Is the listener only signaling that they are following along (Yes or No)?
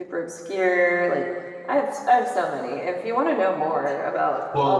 No